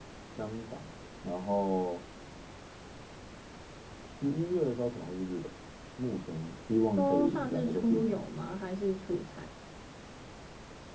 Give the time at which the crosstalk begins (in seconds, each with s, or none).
7.0 s